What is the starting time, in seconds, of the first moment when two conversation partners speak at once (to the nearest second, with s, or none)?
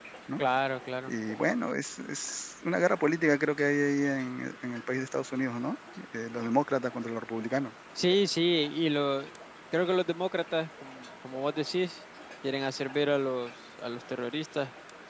none